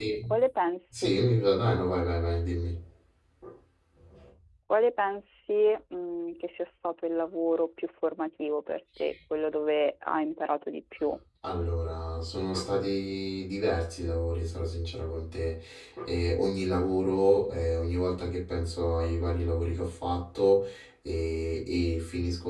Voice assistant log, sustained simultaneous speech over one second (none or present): none